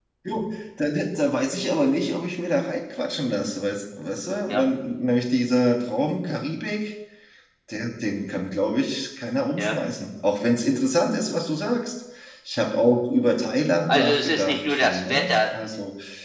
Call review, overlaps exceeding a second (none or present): present